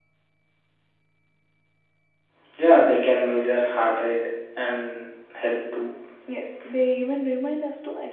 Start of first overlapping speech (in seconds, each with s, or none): none